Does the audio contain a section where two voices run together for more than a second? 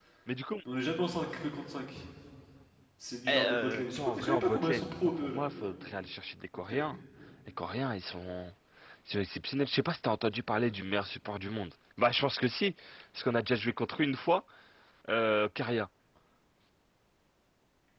Yes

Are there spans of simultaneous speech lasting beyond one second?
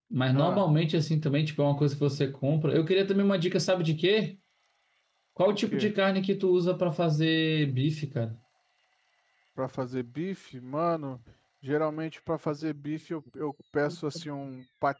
No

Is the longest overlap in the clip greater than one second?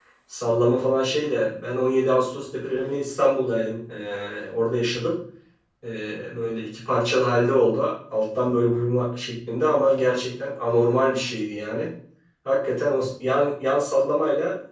No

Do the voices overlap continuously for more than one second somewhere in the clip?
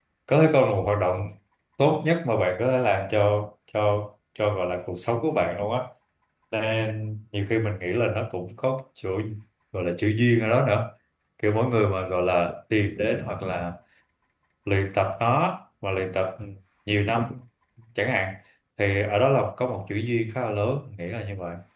No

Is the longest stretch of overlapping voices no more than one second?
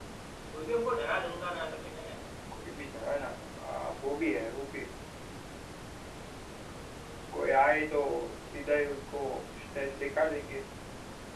Yes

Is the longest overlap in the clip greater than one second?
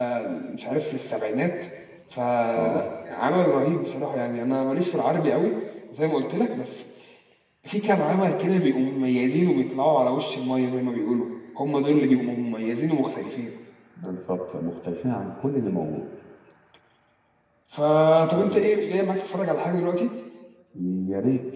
No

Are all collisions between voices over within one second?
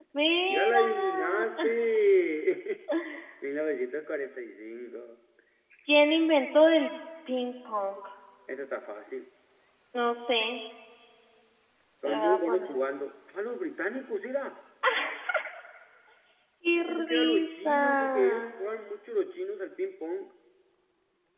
No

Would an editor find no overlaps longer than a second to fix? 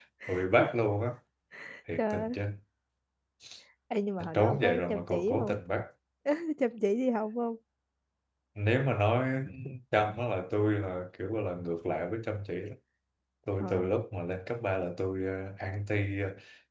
No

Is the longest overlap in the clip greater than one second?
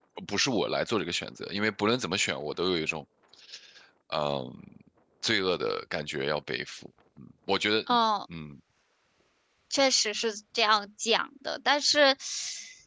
No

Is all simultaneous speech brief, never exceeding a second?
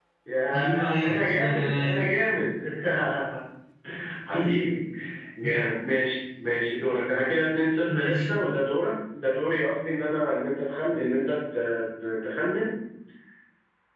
No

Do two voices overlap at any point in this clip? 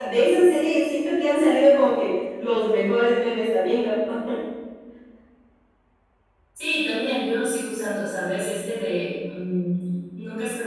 No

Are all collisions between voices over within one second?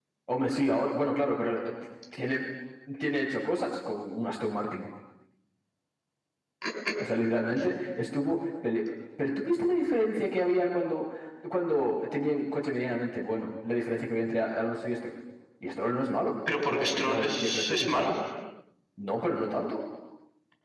No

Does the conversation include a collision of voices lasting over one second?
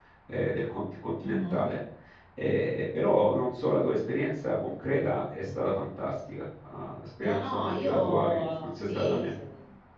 Yes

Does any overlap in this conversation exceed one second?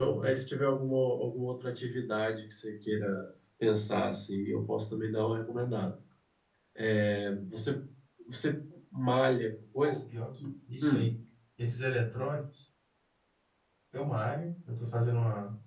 No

